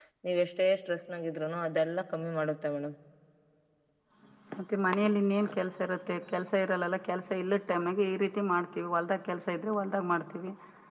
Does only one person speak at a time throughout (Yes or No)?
Yes